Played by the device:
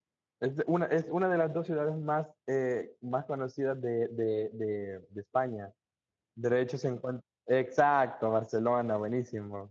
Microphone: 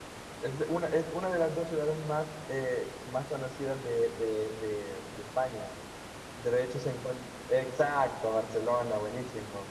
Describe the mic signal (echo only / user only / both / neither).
echo only